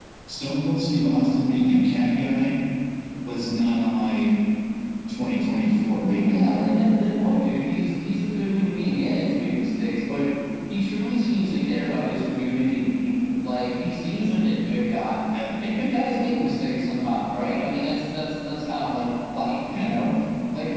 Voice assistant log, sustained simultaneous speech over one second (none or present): none